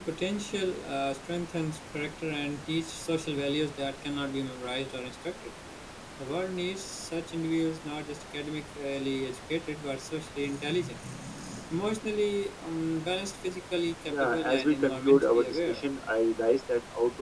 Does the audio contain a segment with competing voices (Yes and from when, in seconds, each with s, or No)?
Yes, from 14.1 s